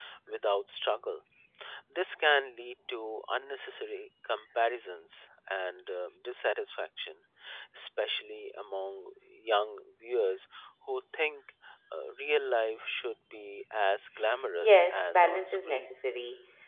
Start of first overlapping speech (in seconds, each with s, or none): 14.6 s